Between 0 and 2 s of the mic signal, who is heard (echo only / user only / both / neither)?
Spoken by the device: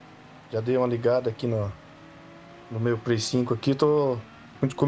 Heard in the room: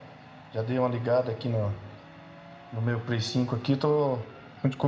echo only